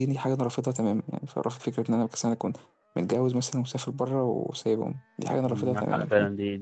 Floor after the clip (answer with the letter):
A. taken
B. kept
A